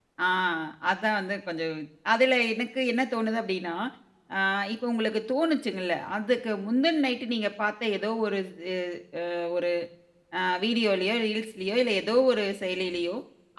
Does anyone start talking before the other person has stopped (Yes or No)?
No